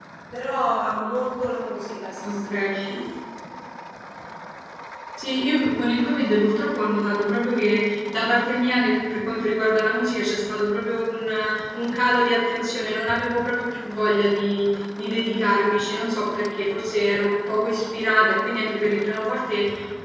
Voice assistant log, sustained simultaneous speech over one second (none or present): none